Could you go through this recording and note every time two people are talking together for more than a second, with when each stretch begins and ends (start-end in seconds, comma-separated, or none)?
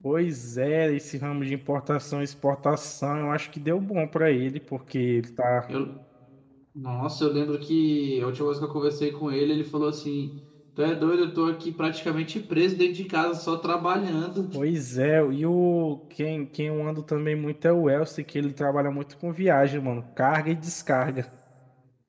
none